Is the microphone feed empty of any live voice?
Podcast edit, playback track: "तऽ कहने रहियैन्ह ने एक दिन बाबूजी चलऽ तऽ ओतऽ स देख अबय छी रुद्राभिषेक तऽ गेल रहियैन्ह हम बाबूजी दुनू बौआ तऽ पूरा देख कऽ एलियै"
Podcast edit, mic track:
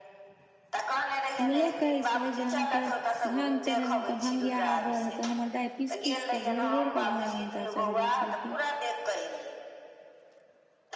No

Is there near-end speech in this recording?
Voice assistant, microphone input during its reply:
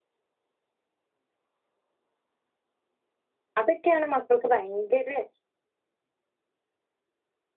Yes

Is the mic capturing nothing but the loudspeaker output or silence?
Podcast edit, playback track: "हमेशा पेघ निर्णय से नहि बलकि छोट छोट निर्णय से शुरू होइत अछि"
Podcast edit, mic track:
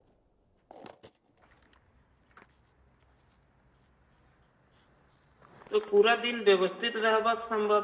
No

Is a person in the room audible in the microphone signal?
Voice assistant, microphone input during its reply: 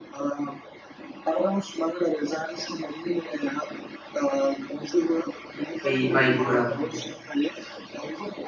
Yes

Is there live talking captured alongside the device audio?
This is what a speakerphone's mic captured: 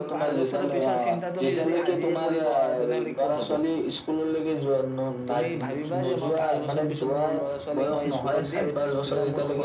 Yes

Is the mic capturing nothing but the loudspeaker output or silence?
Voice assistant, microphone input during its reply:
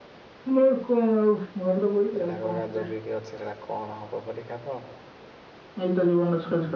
No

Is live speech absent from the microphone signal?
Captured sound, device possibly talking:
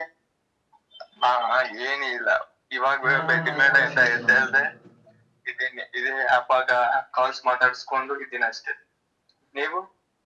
No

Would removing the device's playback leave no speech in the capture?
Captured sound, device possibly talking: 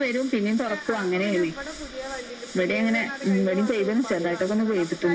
No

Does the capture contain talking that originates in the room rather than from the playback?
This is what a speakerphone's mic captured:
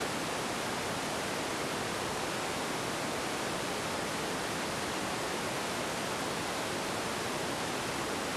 No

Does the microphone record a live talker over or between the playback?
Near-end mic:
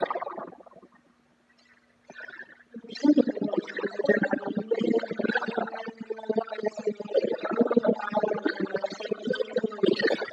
No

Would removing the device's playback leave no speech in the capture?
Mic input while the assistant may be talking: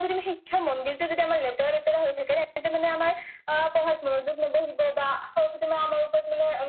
Yes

